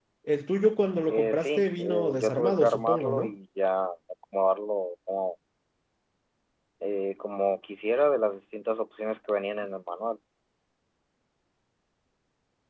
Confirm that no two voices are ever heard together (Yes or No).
No